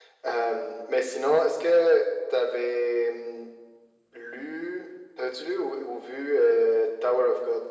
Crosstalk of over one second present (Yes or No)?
No